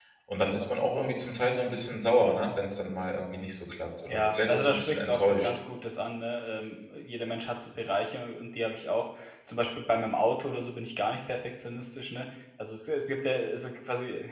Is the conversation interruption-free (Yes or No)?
No